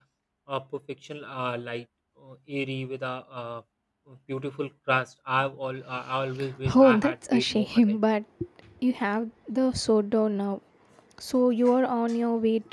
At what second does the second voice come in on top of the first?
6.7 s

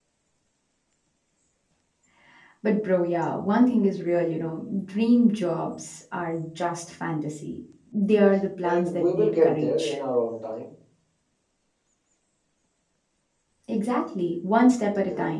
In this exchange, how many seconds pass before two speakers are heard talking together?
8.6 s

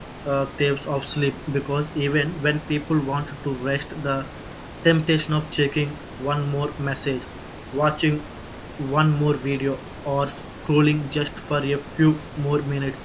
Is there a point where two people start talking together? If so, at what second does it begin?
none

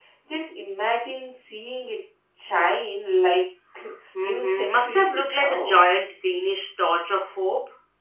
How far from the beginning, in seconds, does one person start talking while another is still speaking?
4.2 s

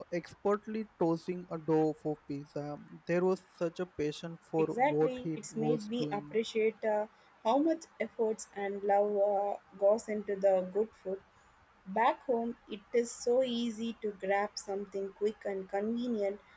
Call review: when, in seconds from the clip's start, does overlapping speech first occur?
4.6 s

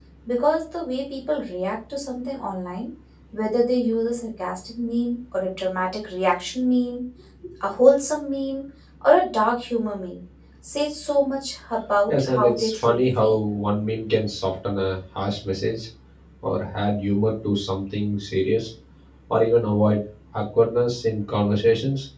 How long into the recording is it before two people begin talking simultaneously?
12.1 s

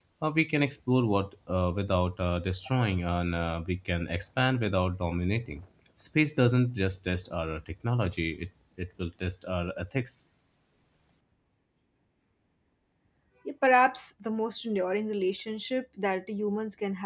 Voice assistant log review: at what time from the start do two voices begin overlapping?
none

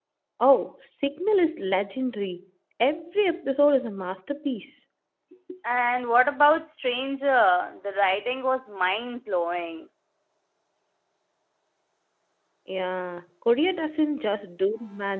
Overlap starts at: none

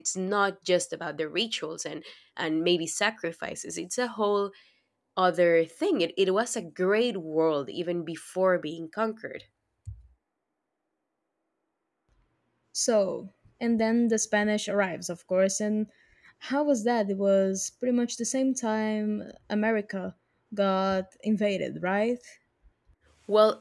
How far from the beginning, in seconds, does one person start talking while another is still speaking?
none

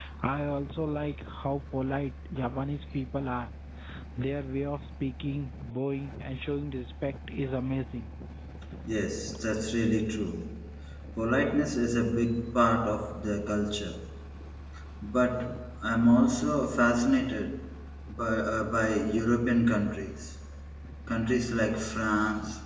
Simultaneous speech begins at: none

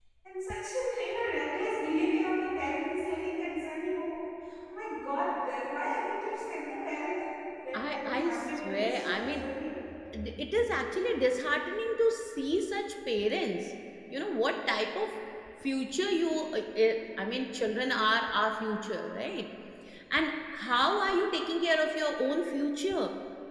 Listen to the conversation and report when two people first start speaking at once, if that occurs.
7.7 s

